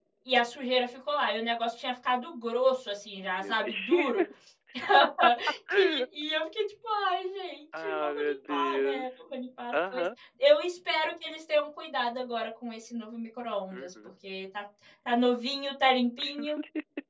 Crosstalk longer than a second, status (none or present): present